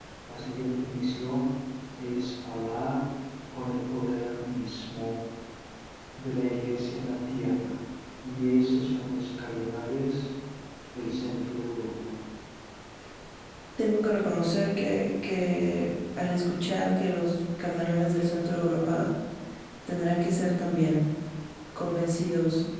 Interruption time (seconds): none

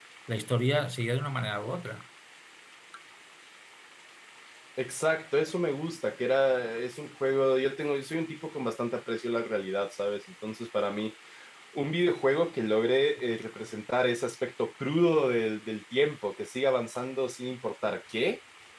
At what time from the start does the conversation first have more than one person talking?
none

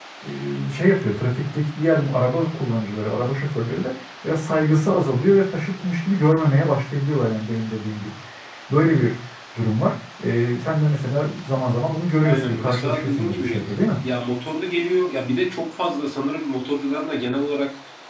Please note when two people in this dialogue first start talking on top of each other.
12.2 s

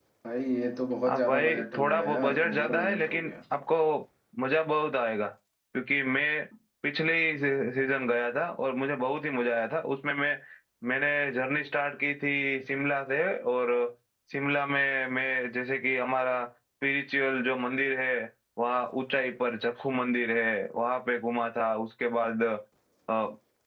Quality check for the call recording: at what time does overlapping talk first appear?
1.1 s

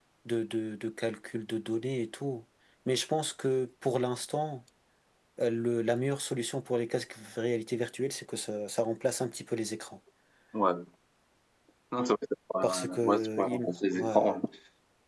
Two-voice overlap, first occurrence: 12.6 s

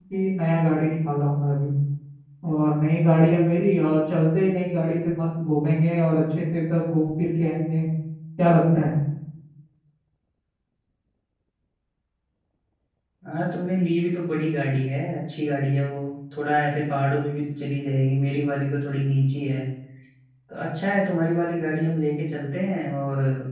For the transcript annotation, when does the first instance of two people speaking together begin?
none

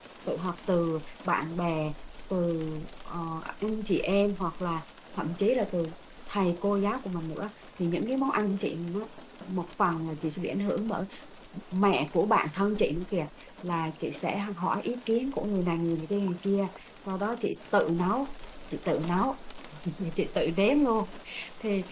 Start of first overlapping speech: none

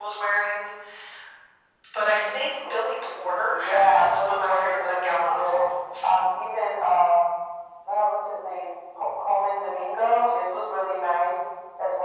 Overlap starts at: 3.0 s

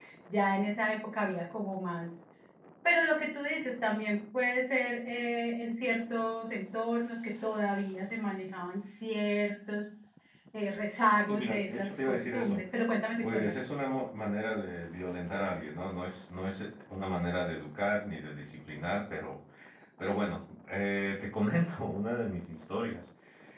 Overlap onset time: 11.3 s

